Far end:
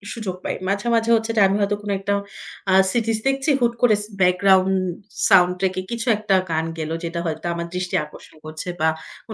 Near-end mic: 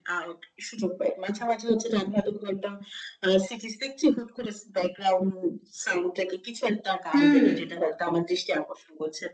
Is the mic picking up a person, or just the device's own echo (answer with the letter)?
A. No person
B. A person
B